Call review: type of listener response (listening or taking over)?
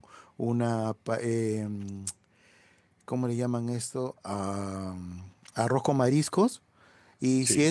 listening